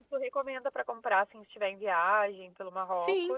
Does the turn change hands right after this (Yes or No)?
Yes